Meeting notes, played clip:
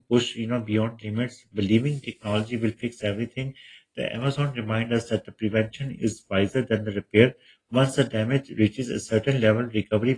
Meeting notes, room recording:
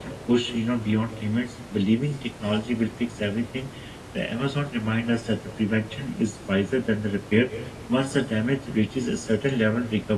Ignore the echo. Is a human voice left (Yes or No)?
No